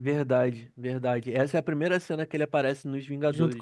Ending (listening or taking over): taking over